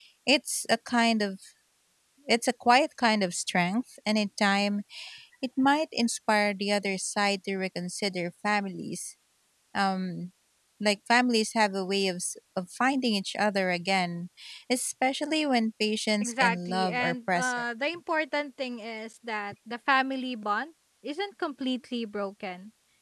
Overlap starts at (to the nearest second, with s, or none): 16 s